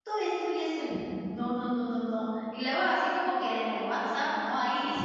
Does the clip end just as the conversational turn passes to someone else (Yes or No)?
No